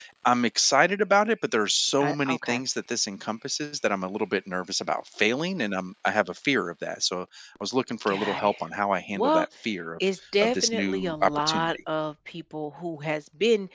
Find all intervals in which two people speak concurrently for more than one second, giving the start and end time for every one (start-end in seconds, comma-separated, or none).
10.4-11.7